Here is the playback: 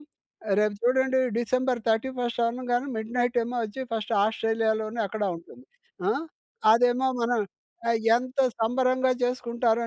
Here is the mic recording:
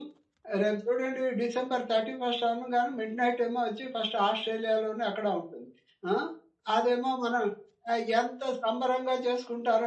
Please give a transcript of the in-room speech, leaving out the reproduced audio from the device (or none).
none